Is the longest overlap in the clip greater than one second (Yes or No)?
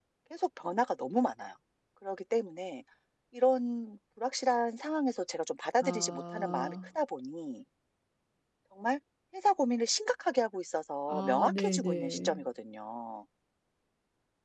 Yes